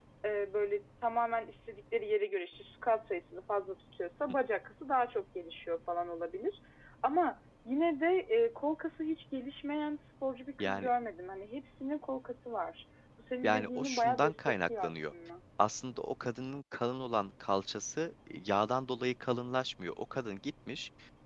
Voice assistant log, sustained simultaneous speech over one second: present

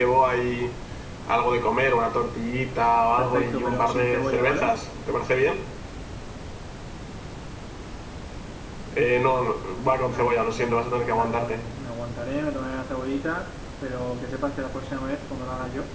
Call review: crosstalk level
present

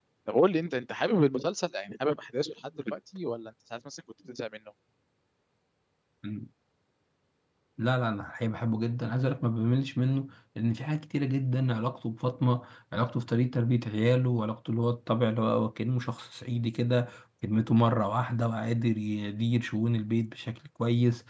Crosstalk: none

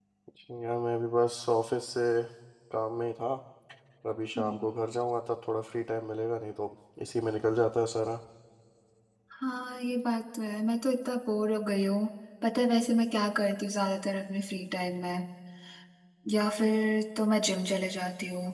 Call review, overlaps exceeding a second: none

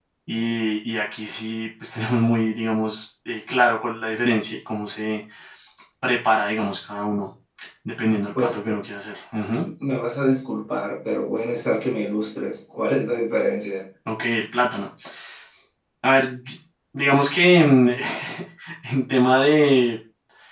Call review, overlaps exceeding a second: none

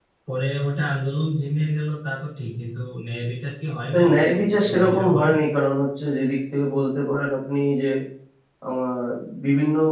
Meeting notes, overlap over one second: present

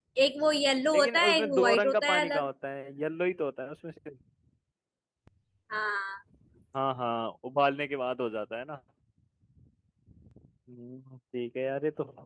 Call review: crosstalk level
present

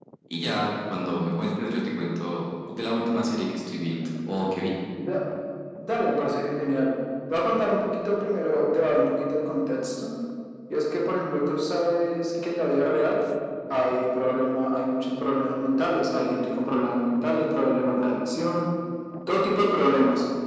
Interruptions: none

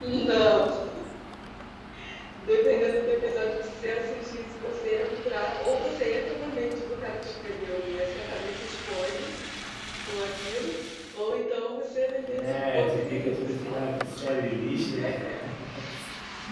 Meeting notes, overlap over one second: present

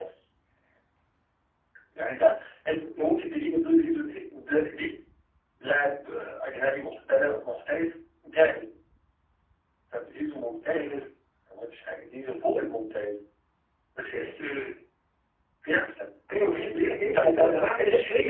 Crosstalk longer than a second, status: present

